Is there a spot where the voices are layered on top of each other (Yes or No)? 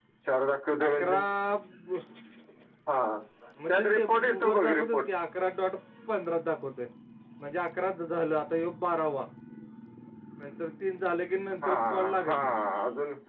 Yes